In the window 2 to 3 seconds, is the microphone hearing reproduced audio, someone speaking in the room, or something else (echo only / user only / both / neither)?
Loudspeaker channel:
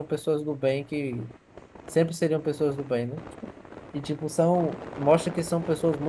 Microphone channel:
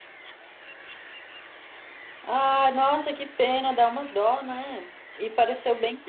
user only